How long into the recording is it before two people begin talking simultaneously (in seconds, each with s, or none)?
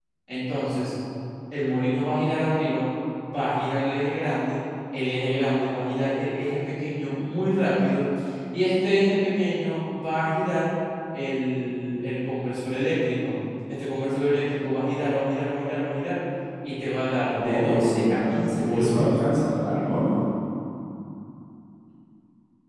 17.4 s